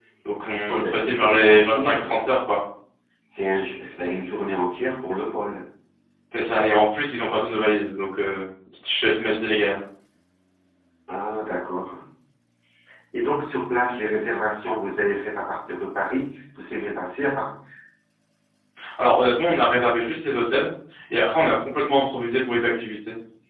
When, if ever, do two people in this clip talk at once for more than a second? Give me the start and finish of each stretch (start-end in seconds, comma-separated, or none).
0.7-2.3